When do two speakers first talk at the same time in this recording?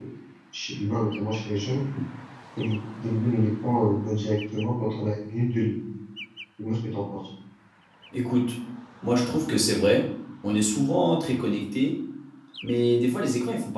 none

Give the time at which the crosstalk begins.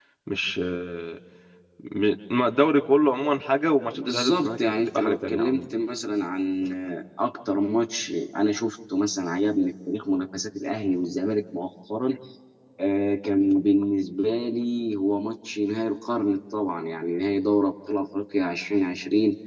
3.9 s

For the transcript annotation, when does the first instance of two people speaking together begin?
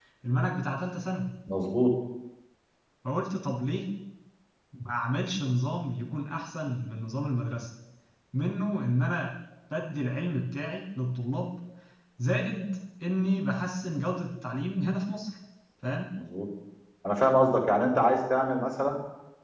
none

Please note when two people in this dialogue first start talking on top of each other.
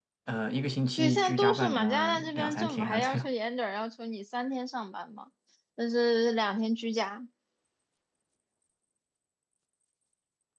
1.0 s

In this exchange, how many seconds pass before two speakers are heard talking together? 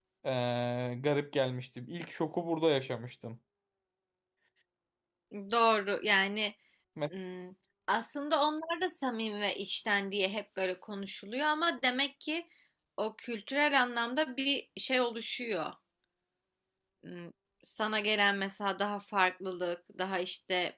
none

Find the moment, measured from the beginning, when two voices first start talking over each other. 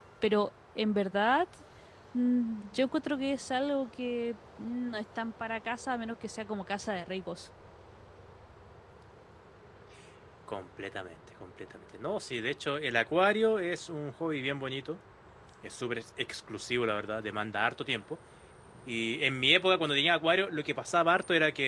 none

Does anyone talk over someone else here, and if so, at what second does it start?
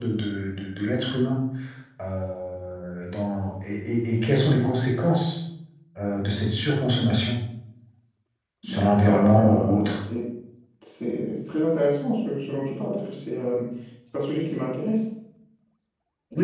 8.6 s

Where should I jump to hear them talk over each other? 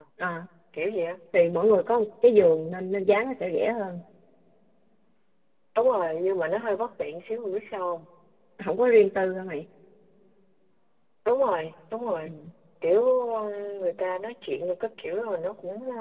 none

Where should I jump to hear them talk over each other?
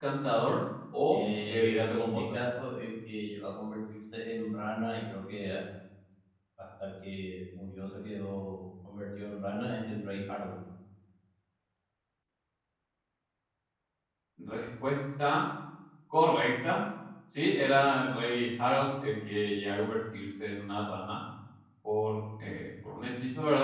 1.1 s

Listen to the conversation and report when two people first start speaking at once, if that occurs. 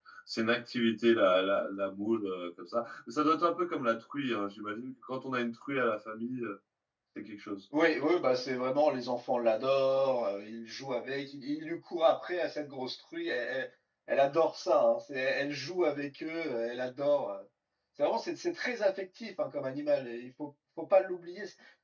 none

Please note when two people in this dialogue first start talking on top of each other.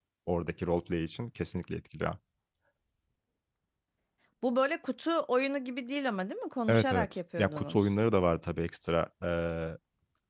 6.7 s

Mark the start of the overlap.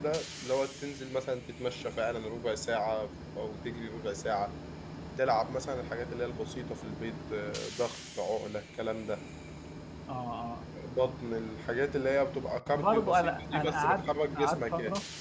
12.7 s

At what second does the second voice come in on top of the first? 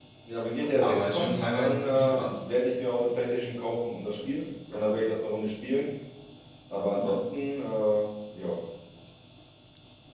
0.8 s

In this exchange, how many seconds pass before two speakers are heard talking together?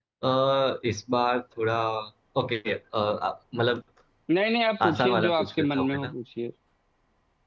4.8 s

